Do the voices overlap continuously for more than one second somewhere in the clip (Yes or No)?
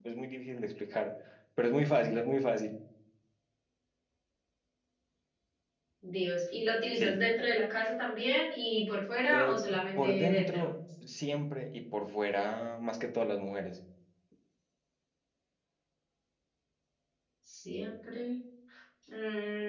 Yes